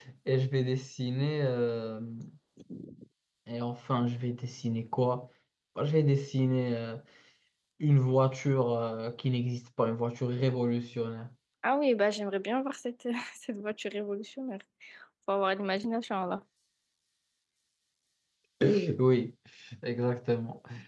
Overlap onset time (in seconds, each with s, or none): none